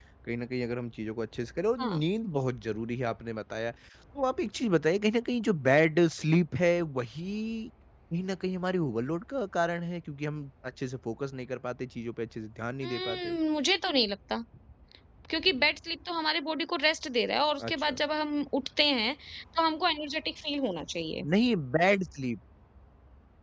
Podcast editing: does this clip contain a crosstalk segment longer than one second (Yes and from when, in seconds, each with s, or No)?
No